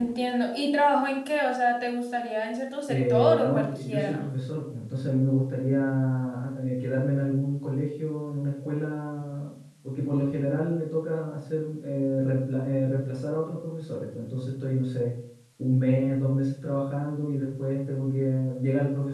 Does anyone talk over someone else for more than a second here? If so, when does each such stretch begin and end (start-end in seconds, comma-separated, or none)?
2.9-4.2